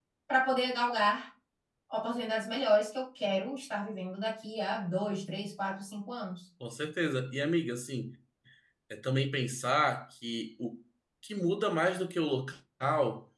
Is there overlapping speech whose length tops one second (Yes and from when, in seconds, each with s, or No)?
No